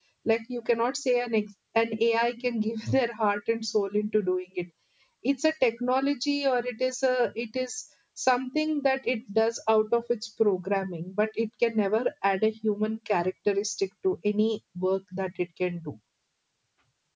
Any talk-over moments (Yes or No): No